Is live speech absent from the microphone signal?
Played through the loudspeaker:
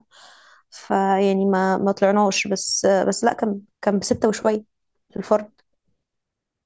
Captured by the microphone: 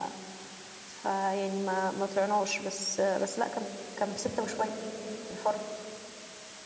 Yes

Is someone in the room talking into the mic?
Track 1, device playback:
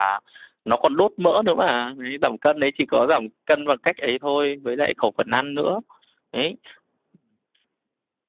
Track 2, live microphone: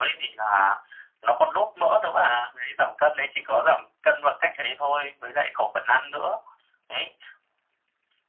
No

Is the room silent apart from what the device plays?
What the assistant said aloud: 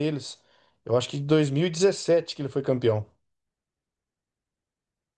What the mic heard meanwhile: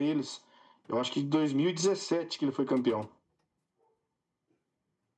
Yes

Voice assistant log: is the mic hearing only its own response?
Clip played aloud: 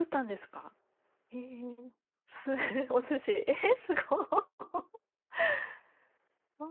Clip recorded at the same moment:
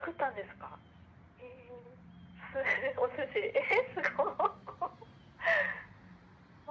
Yes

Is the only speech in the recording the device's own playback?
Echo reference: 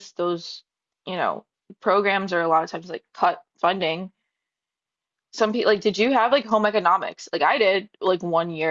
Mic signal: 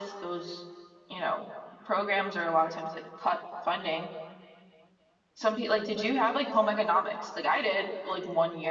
Yes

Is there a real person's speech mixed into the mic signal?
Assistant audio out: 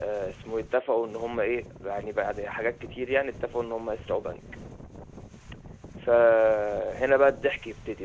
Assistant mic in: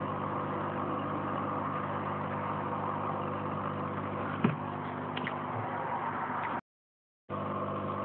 No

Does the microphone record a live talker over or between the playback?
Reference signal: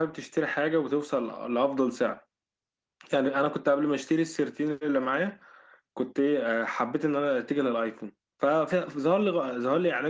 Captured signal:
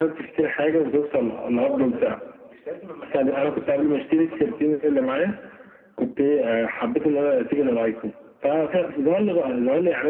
Yes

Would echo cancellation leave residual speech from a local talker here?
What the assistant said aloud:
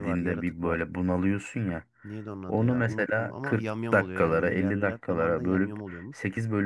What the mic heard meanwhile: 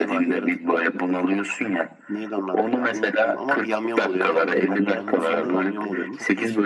Yes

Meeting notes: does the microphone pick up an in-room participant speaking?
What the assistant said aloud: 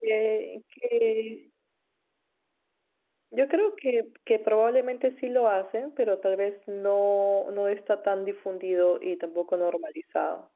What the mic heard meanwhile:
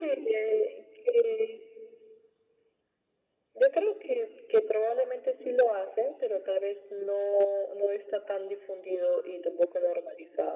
No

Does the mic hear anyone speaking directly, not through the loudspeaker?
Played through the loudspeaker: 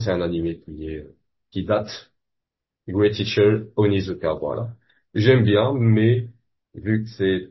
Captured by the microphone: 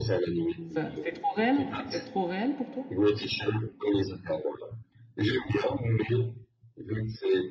Yes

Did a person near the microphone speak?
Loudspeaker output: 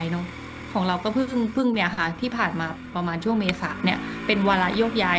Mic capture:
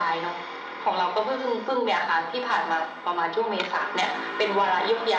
No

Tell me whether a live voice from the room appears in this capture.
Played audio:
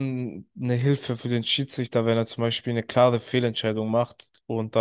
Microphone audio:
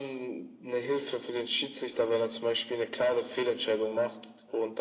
No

